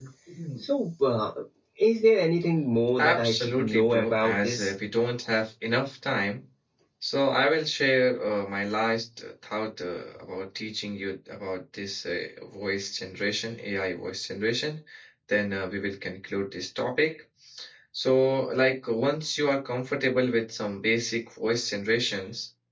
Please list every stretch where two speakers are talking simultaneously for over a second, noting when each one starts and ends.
3.0-4.7

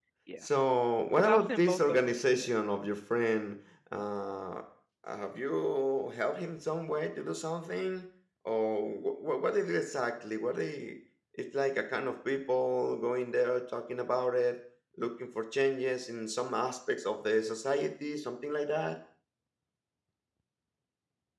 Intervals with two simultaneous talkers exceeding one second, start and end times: 1.1-2.5

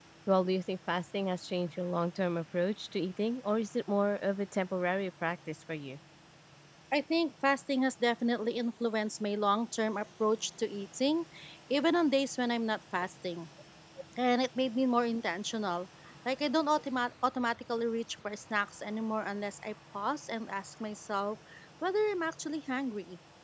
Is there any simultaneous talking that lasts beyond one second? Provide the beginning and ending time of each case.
none

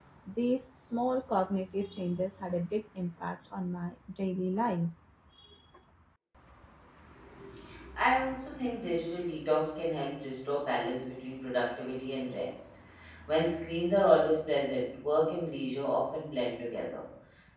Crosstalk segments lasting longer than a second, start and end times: none

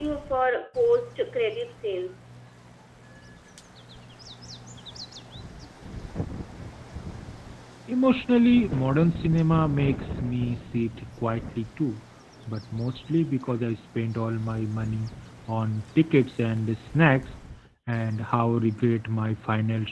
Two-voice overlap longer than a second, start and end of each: none

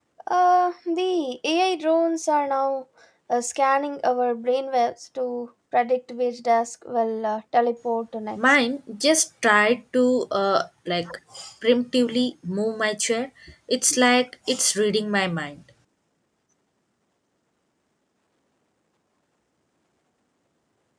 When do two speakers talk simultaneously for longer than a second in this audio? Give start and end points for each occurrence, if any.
none

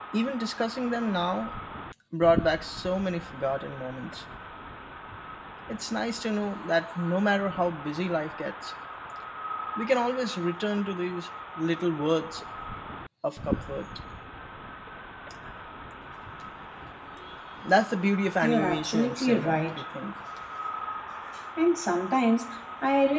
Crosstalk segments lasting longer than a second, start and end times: 18.4-19.8

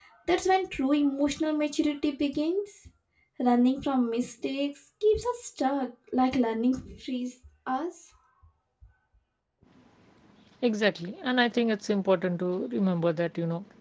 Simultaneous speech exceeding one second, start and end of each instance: none

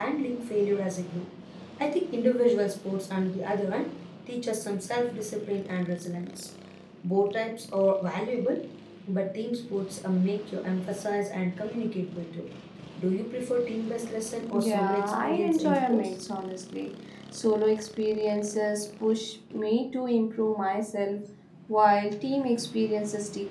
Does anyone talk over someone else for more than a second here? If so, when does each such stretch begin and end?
14.6-16.1

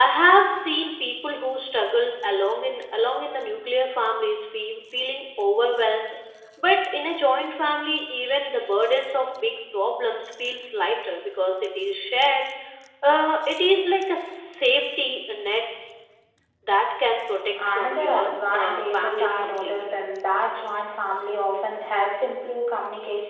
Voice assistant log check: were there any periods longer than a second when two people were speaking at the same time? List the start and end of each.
17.7-19.9

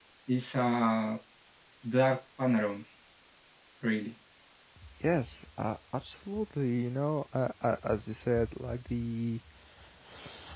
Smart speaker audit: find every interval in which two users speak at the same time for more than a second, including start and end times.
none

